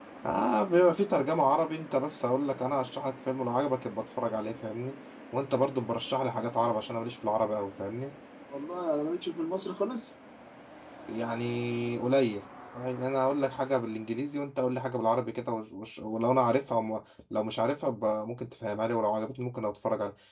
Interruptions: none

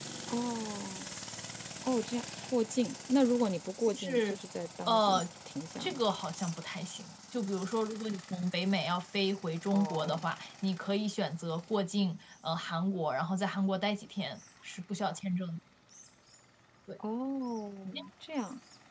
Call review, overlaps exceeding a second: none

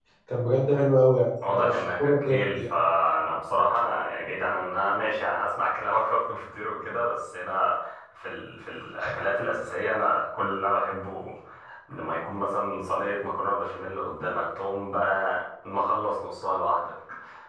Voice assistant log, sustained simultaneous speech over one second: present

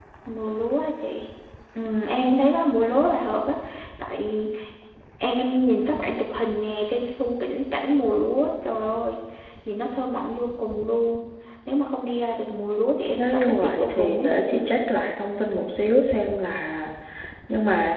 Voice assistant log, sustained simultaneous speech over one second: present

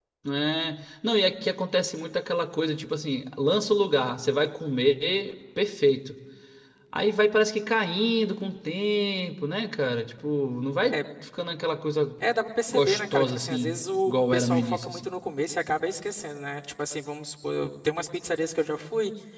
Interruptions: present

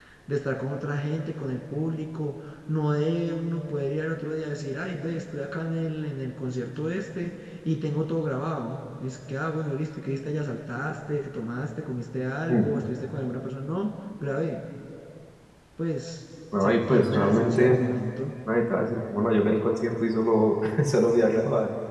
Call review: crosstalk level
present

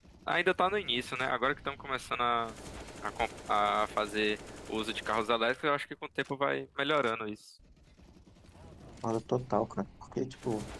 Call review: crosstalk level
none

